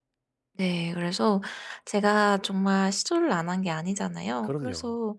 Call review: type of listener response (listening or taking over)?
listening